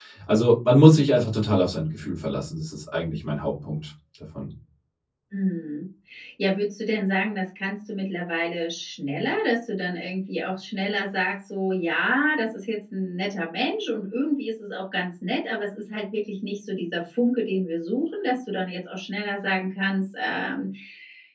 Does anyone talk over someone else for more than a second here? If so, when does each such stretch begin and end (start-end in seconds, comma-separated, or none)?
none